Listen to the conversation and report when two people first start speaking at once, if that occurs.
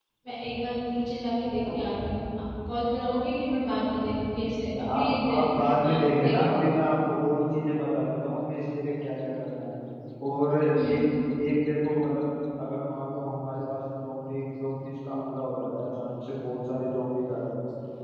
4.9 s

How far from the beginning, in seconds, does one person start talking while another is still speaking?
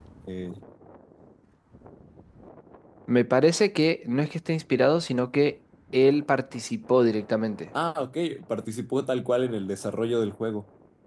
none

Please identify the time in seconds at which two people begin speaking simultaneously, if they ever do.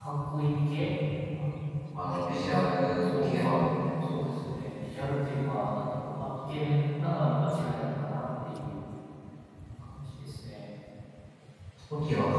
2.4 s

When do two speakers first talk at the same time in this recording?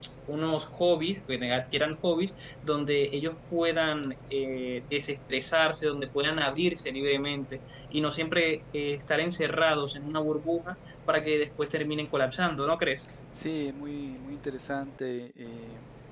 none

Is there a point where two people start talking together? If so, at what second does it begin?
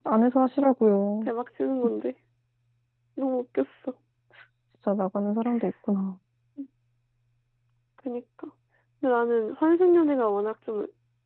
none

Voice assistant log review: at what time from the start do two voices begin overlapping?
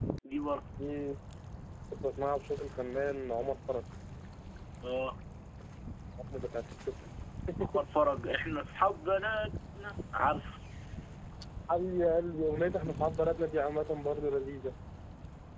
none

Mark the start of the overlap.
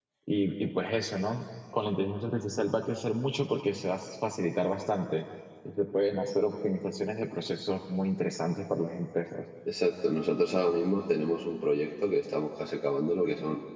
none

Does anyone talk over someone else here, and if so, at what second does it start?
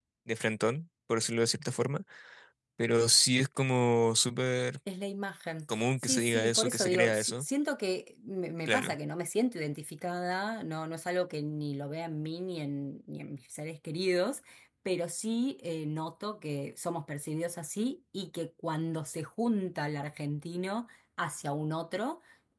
5.7 s

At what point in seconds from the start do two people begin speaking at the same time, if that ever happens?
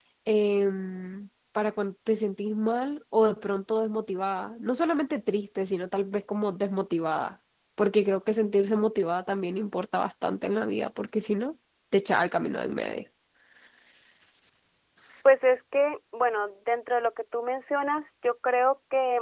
none

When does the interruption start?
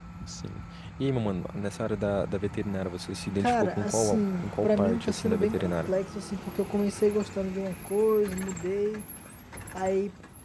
3.4 s

